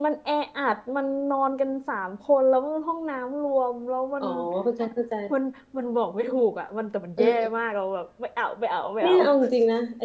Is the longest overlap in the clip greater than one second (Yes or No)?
No